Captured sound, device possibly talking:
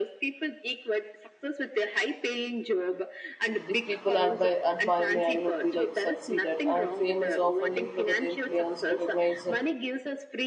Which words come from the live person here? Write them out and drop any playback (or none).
if people admi- admire me, I would be like succeeded. And fame is often linked with influence, recognition,